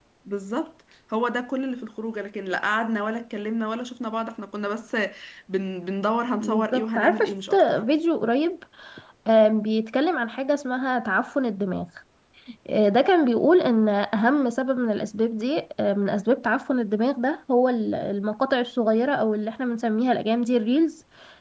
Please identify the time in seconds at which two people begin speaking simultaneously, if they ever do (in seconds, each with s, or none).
6.4 s